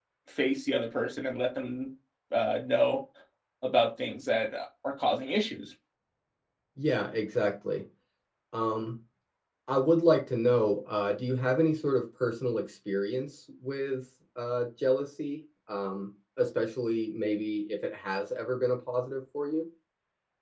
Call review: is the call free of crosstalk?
Yes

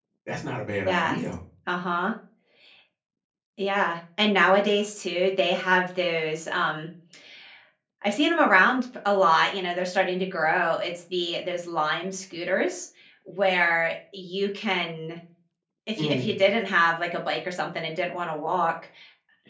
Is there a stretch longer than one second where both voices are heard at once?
No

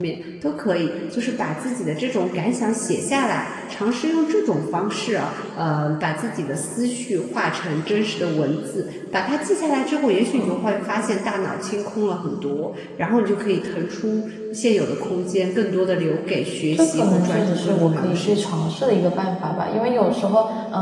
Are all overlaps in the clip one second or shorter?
No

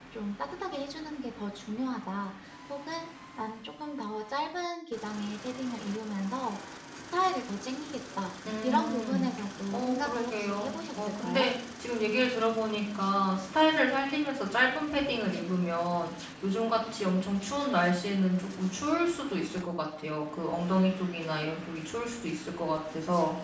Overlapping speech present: Yes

